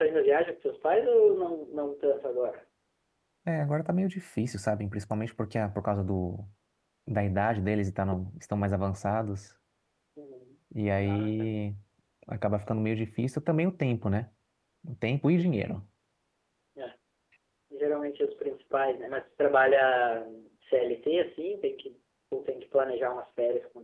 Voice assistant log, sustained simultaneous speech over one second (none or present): none